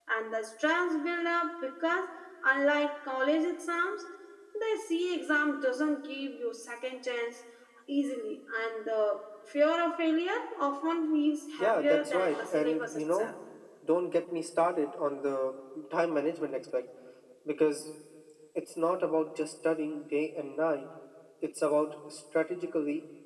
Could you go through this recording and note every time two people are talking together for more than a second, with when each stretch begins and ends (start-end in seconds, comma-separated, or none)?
11.6-13.3